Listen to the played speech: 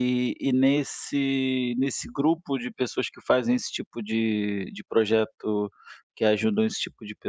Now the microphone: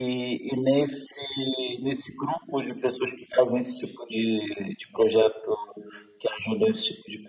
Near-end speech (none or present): none